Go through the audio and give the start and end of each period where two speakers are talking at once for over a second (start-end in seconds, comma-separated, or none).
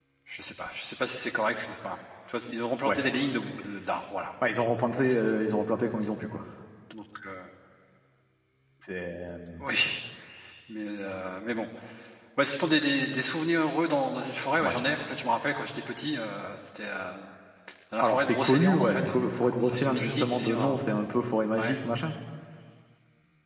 18.0-20.8